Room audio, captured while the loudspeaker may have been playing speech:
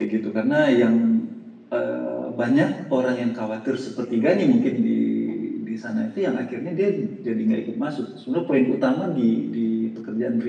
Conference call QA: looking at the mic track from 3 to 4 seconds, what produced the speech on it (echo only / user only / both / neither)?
user only